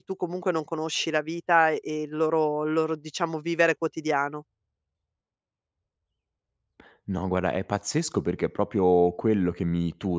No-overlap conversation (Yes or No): Yes